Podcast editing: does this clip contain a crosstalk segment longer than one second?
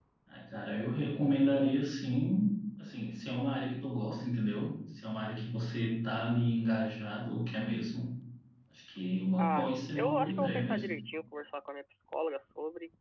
Yes, from 9.4 s

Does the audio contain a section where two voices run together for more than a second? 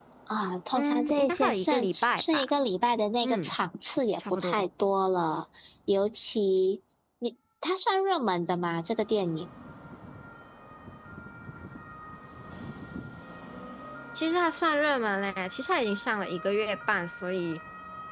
Yes, from 0.7 s

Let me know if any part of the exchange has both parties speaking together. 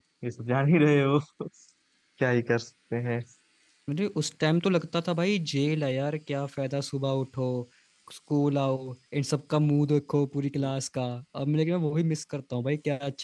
No

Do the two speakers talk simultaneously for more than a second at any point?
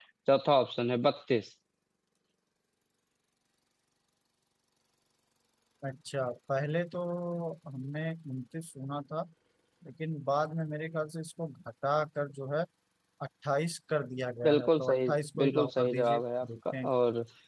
Yes, from 14.4 s

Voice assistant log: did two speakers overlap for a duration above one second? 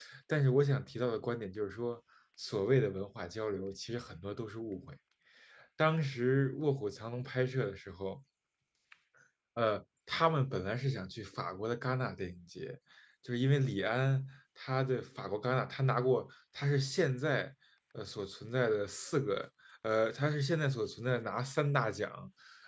No

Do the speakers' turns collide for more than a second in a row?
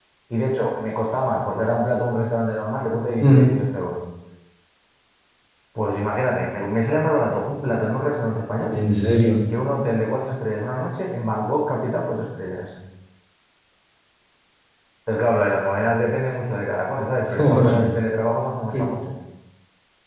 No

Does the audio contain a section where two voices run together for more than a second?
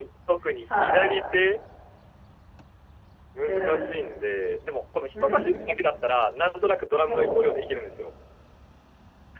No

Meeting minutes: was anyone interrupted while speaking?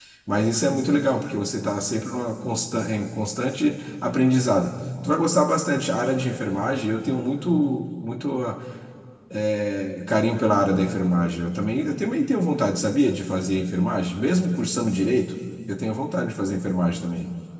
No

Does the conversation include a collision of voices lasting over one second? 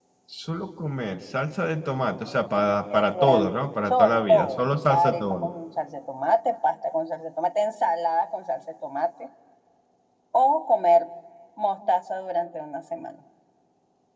Yes, from 2.3 s

